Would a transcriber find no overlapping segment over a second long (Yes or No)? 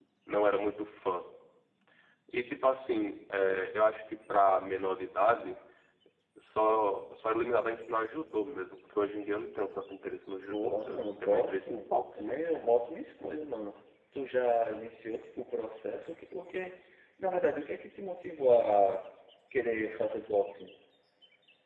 No